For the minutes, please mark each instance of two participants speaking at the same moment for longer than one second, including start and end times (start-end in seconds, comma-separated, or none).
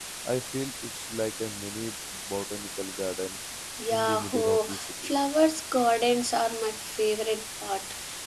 3.9-5.1